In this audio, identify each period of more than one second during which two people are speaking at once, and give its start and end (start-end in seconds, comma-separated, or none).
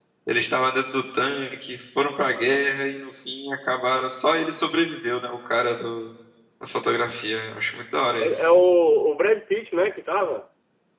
none